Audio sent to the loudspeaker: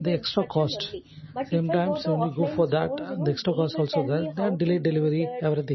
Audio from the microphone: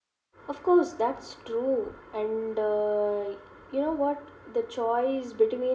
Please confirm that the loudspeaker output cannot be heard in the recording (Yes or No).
Yes